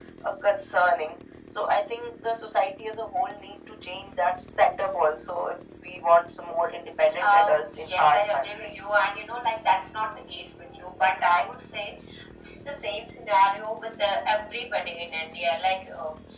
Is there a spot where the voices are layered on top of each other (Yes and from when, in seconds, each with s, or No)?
Yes, from 7.2 s